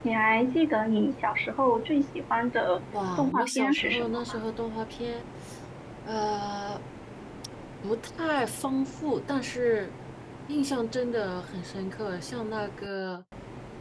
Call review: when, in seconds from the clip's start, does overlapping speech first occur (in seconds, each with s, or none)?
3.2 s